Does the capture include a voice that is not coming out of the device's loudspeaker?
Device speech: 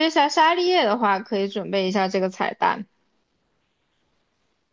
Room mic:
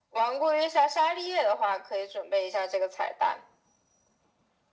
No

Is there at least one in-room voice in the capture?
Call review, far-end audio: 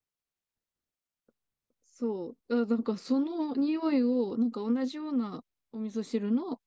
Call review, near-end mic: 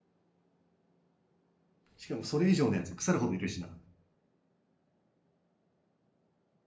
Yes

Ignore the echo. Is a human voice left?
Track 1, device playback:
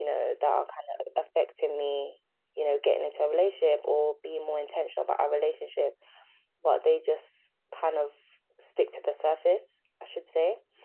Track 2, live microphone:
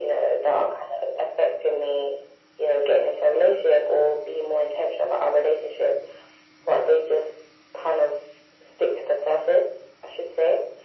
No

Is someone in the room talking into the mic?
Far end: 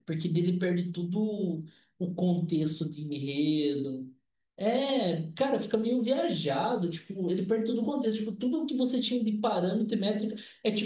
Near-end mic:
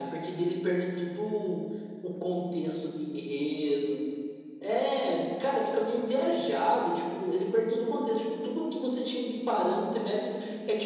No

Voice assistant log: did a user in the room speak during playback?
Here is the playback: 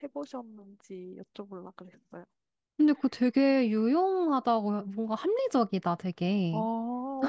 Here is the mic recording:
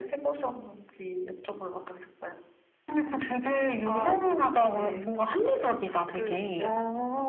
Yes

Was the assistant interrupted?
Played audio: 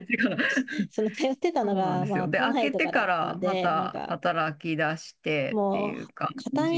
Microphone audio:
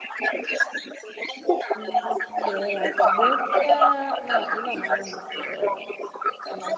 Yes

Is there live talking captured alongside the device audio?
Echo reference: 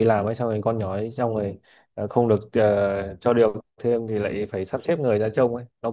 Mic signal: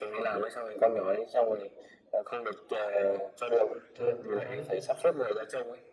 Yes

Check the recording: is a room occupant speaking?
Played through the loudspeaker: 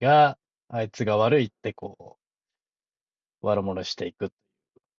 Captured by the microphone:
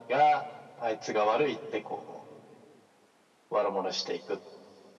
No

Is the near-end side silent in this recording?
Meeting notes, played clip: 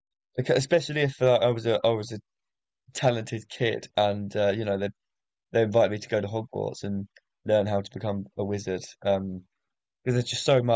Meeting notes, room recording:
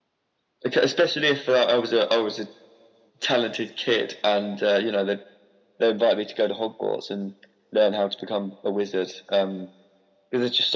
Yes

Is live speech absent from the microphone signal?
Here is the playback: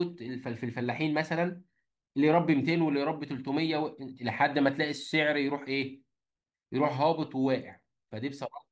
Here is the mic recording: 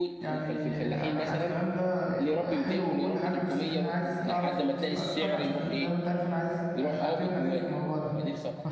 No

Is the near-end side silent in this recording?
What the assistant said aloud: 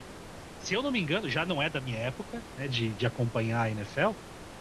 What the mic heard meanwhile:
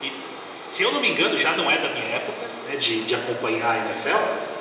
Yes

